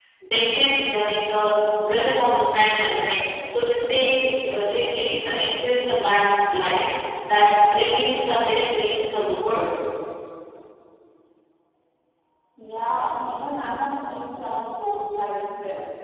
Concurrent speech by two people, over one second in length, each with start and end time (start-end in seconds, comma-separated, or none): none